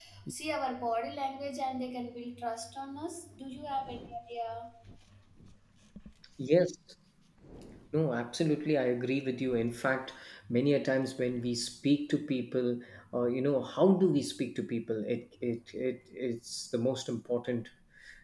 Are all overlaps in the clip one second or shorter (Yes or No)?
Yes